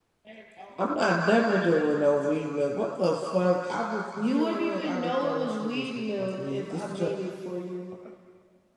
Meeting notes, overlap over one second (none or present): present